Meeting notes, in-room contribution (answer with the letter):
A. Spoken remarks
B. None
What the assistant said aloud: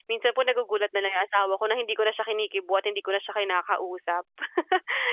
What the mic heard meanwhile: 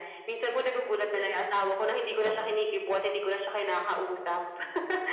A